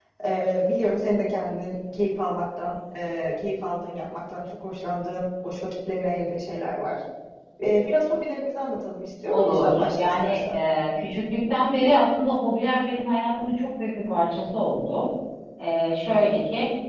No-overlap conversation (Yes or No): No